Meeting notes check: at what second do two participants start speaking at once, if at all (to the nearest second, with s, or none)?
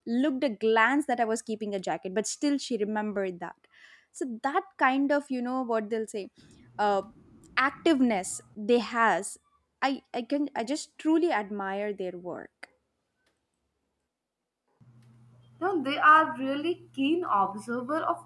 none